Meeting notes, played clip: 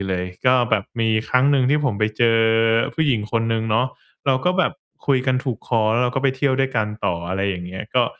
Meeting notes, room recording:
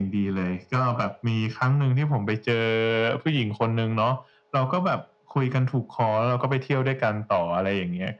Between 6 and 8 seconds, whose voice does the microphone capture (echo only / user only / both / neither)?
echo only